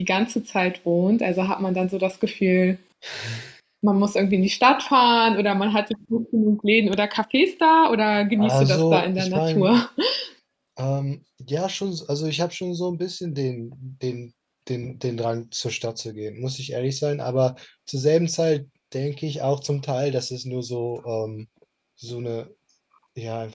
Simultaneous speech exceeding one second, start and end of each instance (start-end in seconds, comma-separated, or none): 8.4-9.8